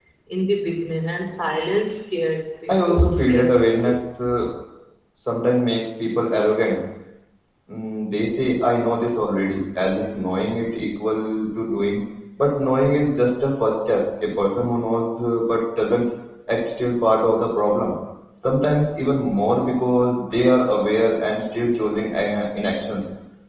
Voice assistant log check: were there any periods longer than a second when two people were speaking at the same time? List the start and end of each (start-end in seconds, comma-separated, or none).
2.7-4.0